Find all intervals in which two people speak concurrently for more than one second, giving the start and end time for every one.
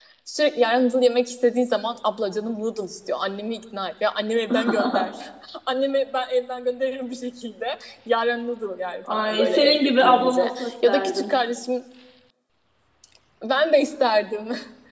9.2-11.3

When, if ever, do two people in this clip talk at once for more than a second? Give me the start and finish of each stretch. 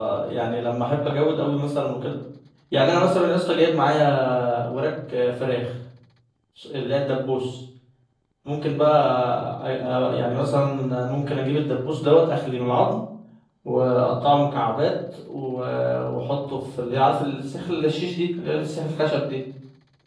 none

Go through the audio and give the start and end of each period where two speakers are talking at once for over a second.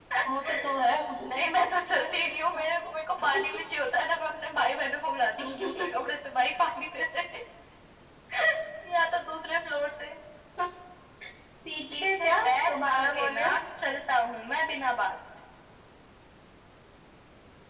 11.9-13.6

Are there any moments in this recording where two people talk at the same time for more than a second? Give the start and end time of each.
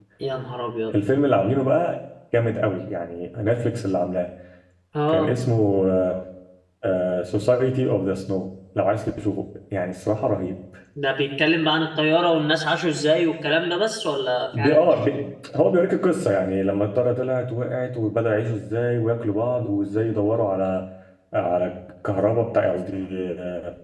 none

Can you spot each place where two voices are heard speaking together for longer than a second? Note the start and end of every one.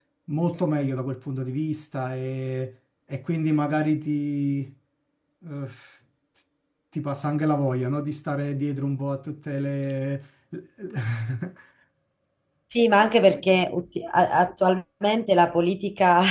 none

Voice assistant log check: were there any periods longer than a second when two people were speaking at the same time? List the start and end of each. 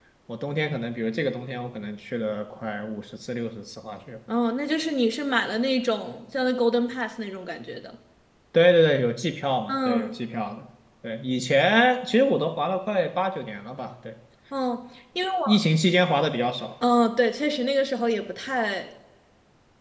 none

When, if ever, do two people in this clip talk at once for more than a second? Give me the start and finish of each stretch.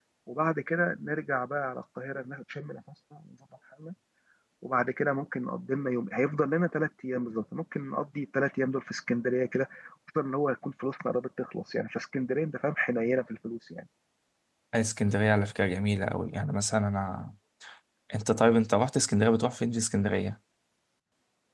none

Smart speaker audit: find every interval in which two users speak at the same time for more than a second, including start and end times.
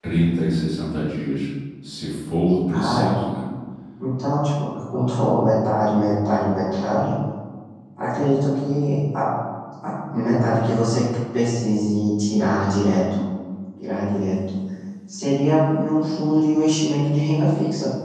none

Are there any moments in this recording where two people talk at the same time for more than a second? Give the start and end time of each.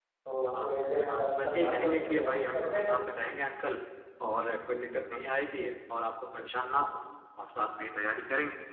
1.1-3.0

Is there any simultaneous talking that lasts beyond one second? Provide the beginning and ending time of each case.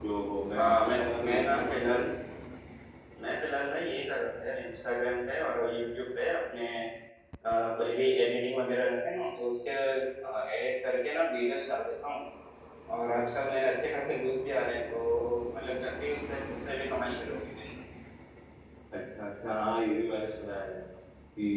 0.6-1.8

